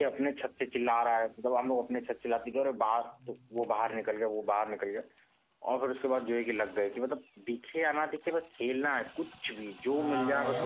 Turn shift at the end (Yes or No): Yes